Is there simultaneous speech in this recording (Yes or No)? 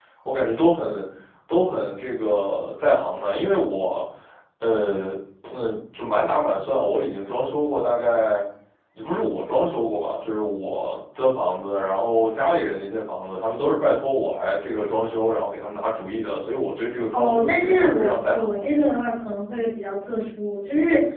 Yes